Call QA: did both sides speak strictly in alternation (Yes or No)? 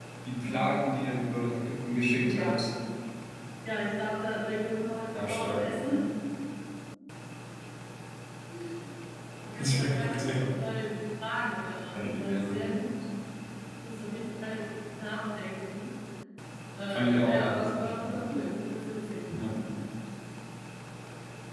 No